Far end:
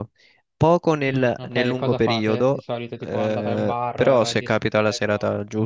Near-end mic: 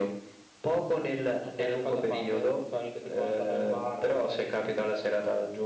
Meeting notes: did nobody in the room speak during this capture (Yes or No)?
Yes